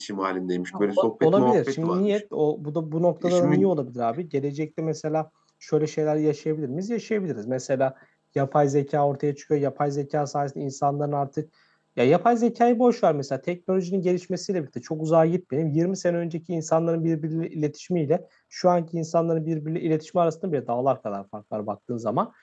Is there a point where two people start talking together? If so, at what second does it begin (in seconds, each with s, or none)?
0.8 s